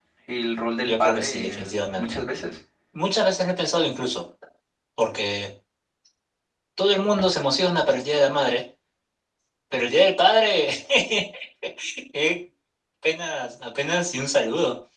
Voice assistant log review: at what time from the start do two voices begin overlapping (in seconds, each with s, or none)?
0.8 s